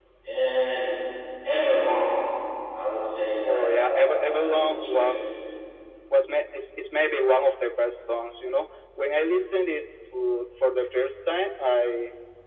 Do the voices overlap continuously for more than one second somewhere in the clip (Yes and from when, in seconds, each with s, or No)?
Yes, from 3.4 s